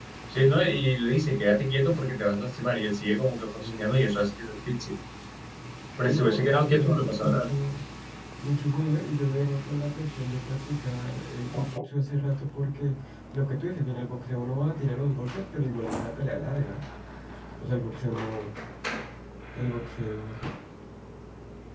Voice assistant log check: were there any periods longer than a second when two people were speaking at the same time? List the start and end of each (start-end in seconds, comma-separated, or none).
6.0-7.5